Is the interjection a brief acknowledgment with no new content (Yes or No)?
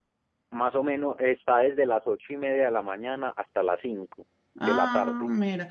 No